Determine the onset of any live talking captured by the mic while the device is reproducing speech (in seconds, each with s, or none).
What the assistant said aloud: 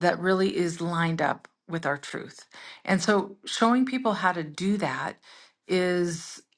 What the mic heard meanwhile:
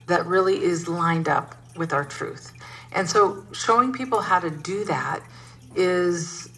none